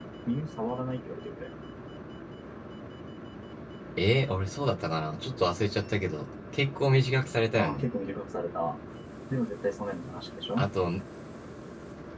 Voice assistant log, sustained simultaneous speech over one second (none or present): none